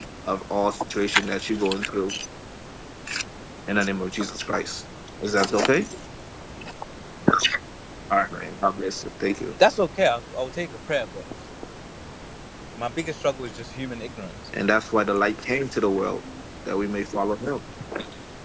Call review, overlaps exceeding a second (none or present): none